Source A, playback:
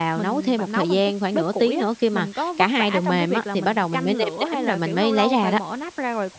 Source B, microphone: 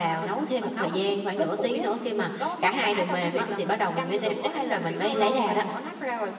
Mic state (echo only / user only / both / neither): echo only